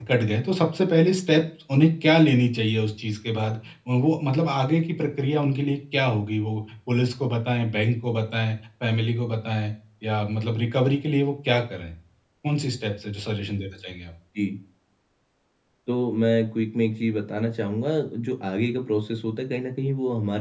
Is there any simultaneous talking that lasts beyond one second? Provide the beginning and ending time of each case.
none

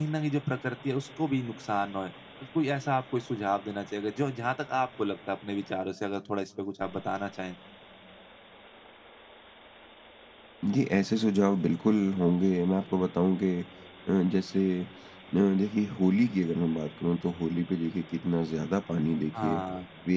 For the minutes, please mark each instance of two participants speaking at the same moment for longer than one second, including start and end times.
none

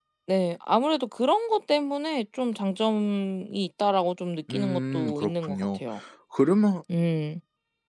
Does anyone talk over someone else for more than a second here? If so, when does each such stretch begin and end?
4.5-5.8

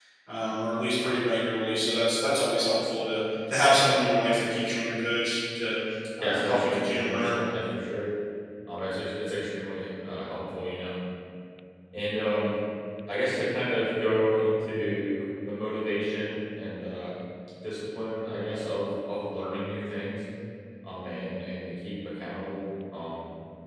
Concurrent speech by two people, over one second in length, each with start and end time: 6.2-7.4

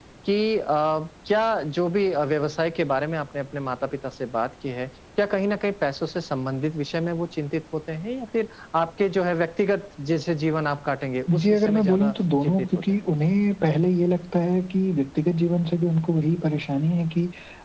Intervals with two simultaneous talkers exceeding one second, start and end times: 11.4-12.9

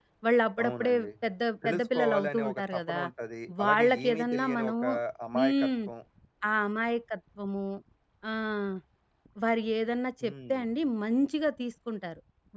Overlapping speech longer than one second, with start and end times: 1.6-3.0, 3.6-4.8

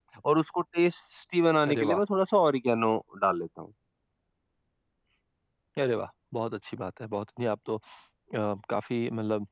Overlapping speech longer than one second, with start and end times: none

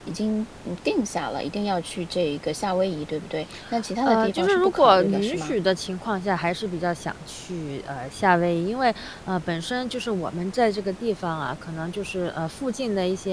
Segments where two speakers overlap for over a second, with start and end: 4.0-5.5

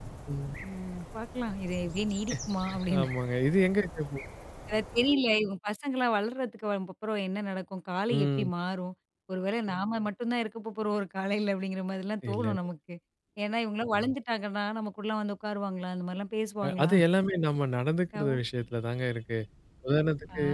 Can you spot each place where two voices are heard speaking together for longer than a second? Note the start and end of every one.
none

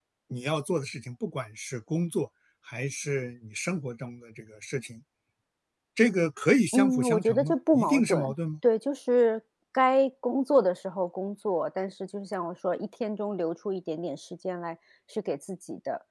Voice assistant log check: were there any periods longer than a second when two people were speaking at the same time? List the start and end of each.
6.7-8.3

